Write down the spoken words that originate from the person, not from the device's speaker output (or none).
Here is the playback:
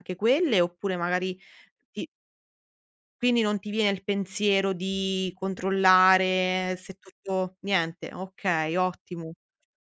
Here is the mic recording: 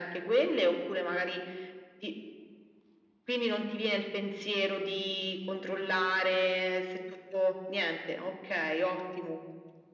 none